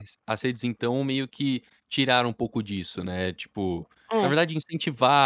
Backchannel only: Yes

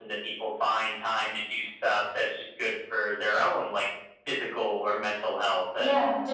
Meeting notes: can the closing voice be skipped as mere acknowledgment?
No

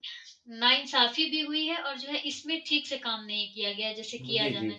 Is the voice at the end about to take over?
Yes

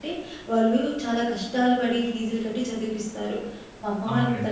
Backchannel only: No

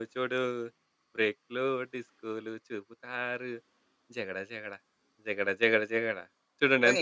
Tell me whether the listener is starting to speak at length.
Yes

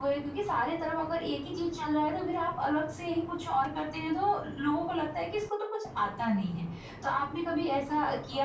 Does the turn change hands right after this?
No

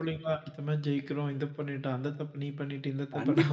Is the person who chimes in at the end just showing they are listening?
No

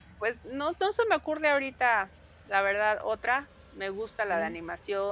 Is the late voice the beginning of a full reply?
No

